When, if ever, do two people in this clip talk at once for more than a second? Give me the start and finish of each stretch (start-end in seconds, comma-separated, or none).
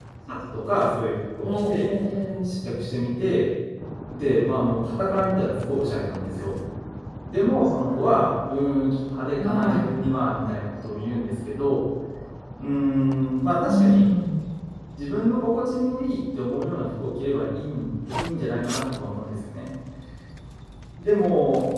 none